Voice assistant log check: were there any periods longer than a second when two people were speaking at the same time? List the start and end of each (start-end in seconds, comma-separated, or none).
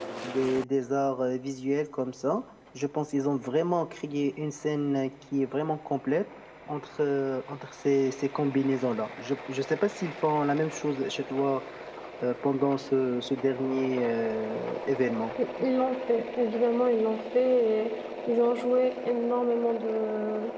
none